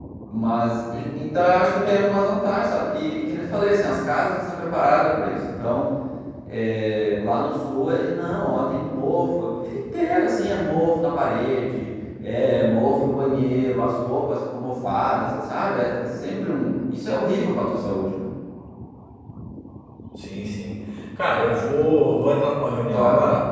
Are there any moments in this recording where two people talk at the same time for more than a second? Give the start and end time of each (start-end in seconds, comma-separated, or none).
none